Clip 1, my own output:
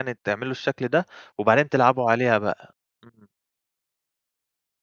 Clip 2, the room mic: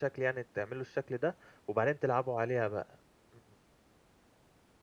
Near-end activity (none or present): none